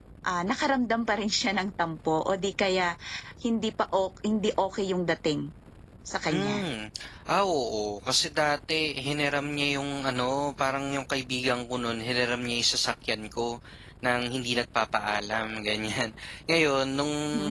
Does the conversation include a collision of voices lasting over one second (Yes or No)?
No